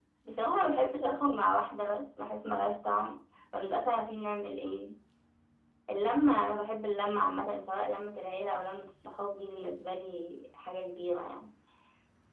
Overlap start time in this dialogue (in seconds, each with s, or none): none